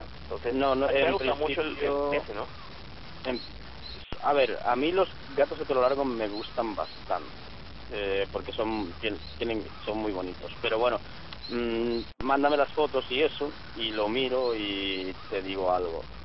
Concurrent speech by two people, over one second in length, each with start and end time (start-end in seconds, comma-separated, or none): 0.5-2.2